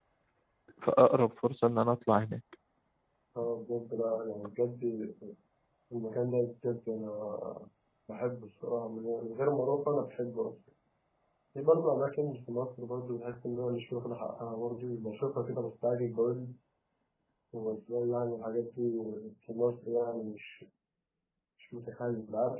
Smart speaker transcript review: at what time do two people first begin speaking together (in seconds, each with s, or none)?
none